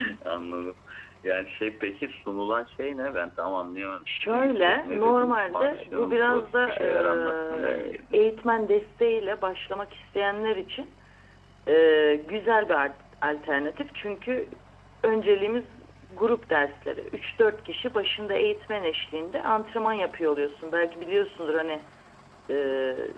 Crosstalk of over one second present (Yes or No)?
Yes